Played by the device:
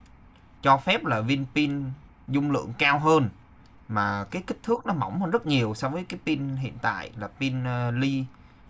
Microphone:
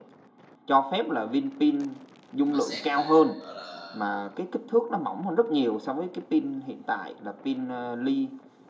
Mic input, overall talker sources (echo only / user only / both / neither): both